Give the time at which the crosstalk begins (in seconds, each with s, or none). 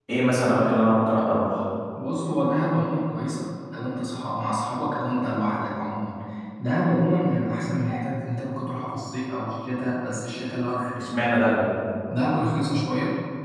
none